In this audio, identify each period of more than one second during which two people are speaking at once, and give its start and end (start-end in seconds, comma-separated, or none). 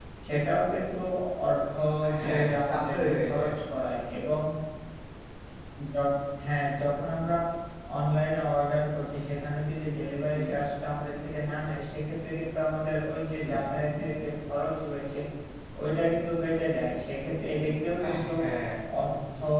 2.2-3.6